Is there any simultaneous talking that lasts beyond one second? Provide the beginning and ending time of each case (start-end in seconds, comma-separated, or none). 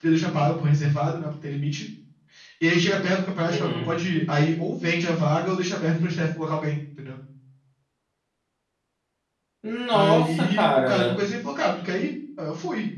9.9-11.2